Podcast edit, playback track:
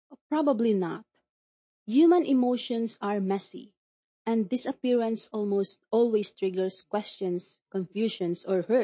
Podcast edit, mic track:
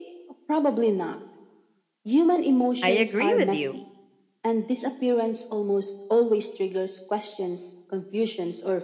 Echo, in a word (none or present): present